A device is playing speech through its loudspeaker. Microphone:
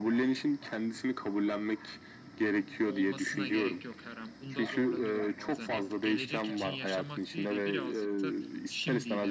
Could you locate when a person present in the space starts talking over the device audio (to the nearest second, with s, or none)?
3 s